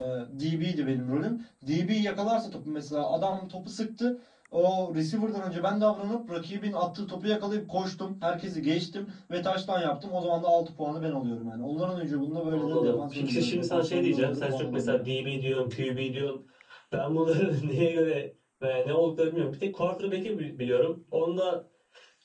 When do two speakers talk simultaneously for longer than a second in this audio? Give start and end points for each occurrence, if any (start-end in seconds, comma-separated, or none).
12.5-15.1